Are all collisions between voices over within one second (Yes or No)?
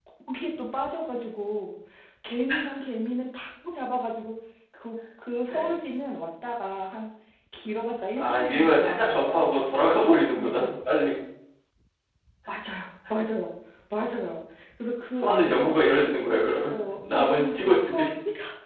No